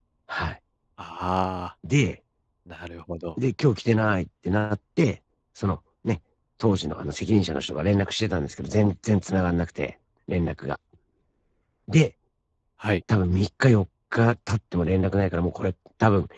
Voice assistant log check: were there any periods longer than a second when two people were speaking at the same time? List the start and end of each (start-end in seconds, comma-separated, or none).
none